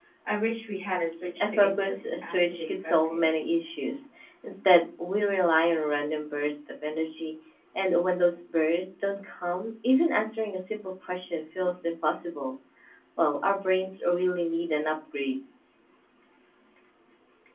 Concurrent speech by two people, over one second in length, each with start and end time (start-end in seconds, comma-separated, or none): 1.4-3.4